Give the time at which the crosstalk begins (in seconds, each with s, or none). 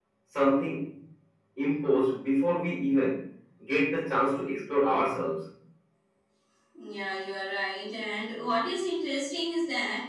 none